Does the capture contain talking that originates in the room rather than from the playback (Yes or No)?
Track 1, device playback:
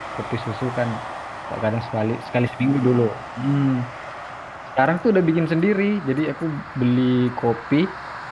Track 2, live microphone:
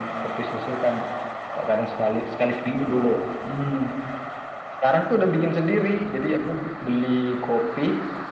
No